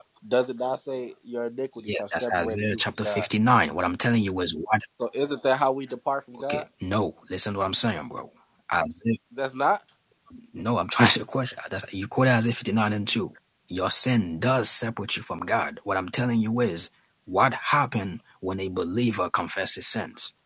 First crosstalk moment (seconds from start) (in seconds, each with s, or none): 1.9 s